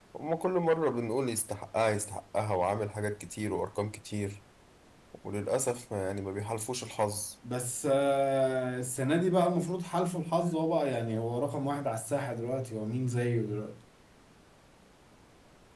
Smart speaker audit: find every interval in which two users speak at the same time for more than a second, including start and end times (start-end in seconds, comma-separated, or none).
none